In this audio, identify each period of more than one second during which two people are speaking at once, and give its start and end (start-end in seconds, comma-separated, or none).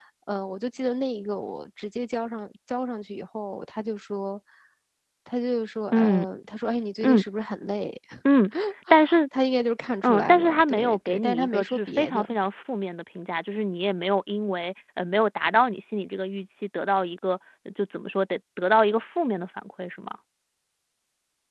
10.0-12.4